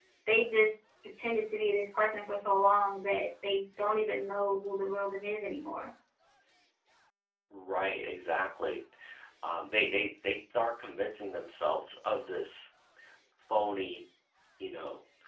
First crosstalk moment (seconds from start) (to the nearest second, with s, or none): none